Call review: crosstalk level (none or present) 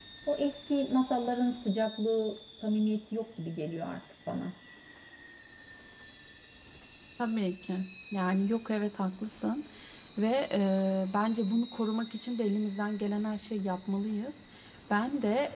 none